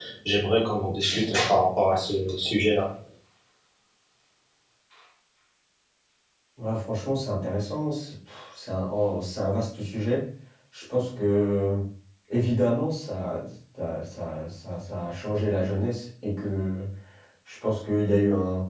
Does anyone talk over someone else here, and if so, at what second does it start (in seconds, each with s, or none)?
none